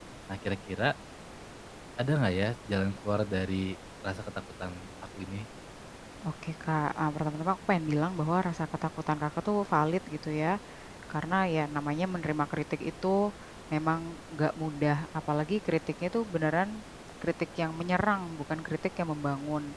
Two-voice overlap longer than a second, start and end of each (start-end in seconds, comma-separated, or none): none